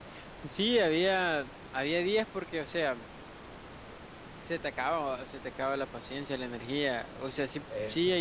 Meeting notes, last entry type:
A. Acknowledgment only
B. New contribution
A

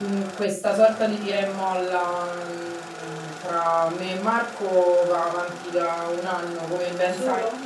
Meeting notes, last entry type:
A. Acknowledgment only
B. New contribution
A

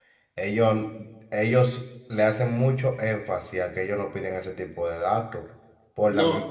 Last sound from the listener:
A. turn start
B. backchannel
B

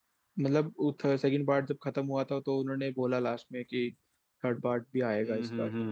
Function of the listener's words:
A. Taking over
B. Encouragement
A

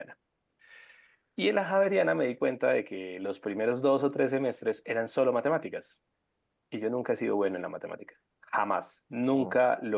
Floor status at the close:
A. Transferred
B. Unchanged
B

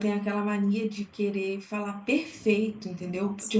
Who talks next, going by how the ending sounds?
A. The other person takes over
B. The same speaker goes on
B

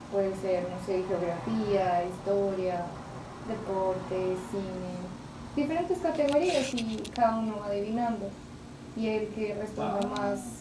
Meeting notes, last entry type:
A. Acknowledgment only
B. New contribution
A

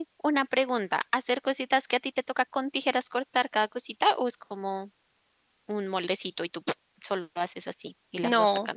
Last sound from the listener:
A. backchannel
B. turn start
B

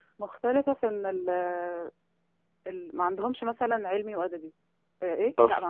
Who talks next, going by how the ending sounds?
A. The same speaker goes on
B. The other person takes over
A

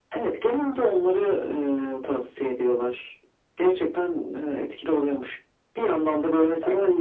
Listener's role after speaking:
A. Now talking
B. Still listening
B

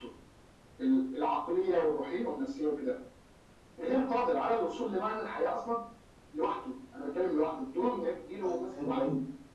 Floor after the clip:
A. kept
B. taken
B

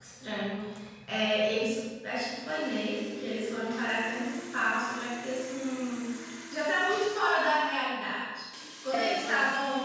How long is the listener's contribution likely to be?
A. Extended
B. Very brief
B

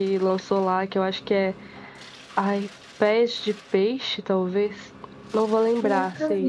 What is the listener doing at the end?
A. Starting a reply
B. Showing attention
B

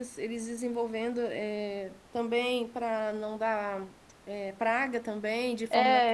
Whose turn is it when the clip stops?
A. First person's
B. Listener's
B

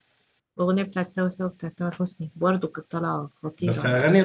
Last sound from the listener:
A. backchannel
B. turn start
B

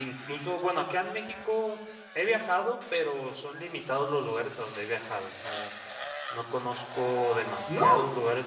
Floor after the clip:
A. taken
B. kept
B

